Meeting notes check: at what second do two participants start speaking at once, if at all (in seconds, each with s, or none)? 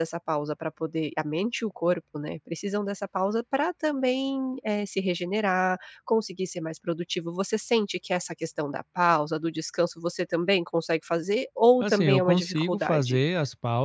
11.8 s